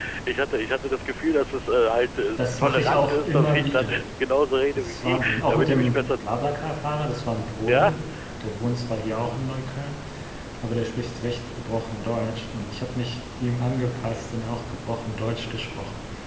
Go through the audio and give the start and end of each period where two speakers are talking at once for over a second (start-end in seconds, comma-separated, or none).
2.4-4.0, 4.8-6.1